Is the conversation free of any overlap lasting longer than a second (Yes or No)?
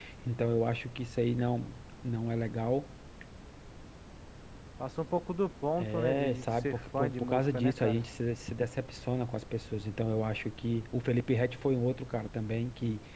No